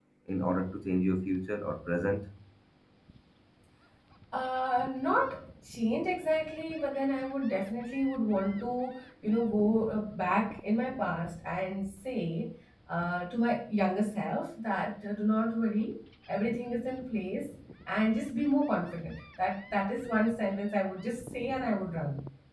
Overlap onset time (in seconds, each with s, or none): none